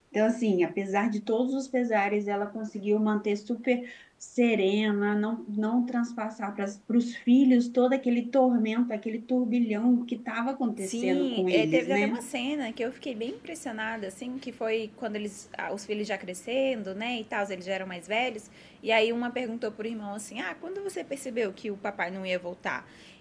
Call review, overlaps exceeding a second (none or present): present